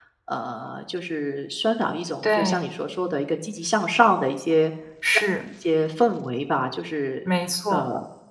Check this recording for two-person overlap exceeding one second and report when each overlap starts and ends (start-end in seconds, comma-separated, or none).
none